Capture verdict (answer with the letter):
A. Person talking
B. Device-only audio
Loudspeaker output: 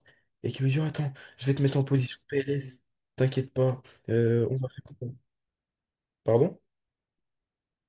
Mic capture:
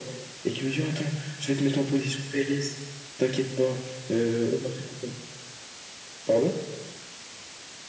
B